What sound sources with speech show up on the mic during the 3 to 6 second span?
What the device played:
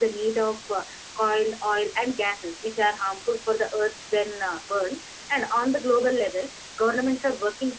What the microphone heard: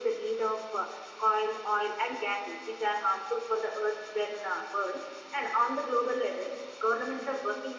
echo only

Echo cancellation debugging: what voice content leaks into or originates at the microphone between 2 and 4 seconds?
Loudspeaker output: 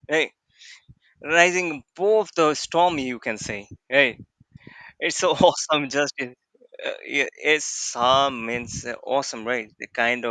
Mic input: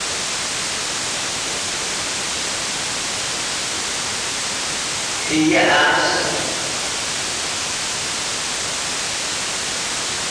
neither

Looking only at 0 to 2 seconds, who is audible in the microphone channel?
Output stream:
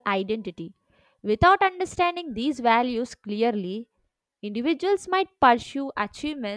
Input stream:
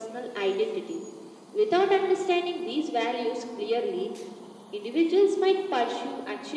echo only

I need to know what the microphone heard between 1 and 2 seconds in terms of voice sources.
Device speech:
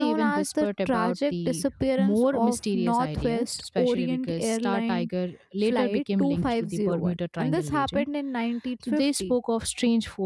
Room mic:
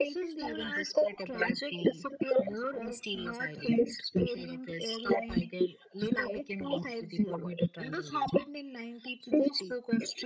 echo only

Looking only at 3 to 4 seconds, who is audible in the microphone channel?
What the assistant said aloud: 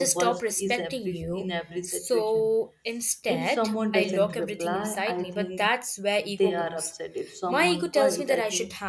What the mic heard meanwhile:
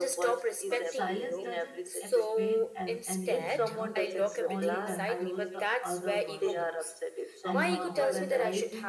both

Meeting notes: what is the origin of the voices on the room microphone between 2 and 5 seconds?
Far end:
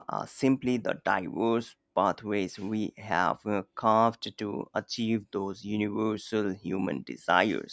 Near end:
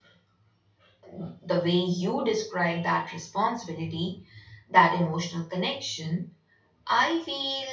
user only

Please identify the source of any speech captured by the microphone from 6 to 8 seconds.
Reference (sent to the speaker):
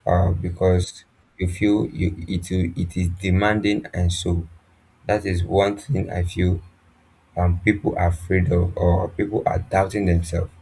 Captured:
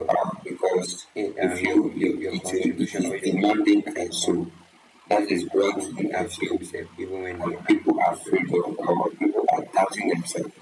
both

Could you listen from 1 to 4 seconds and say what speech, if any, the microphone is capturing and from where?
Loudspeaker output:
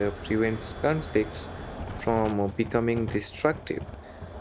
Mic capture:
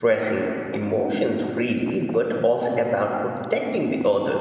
user only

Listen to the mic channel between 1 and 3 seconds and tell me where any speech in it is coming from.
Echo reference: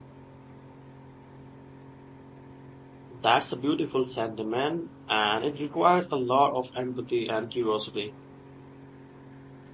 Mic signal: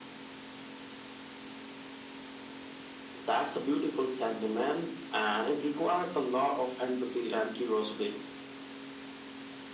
neither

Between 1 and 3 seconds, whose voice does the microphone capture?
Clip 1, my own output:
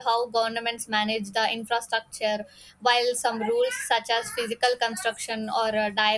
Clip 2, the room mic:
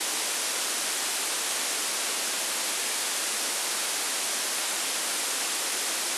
neither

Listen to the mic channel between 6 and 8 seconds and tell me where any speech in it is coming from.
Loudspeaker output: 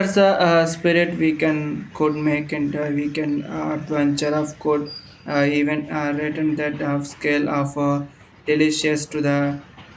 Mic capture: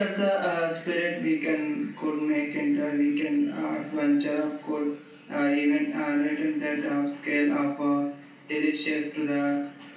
echo only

